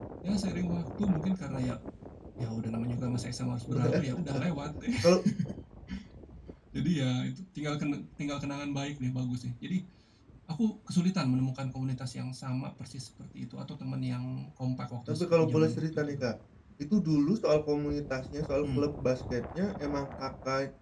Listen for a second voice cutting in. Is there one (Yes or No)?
Yes